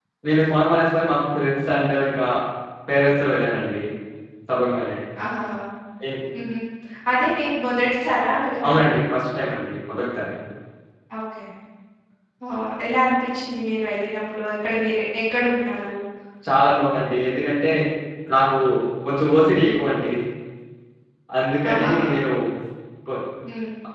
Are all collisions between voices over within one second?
Yes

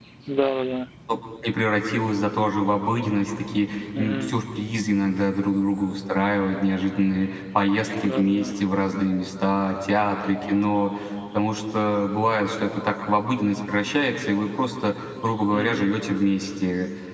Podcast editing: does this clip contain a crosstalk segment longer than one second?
No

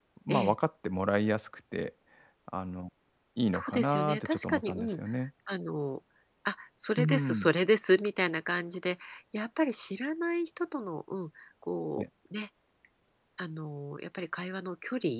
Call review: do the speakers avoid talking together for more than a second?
No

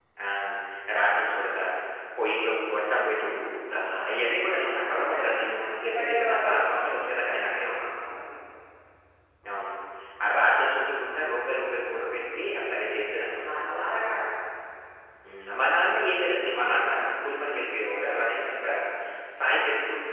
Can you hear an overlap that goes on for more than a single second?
Yes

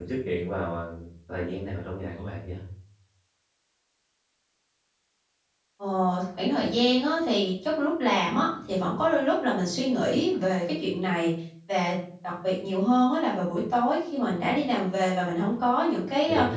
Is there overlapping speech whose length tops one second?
No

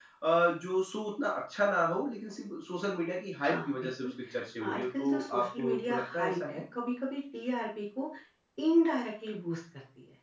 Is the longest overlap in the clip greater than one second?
Yes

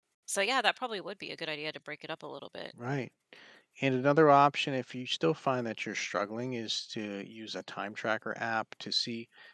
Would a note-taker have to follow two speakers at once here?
No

